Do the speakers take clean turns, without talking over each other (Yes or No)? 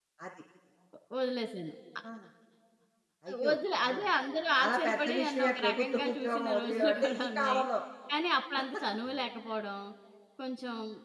No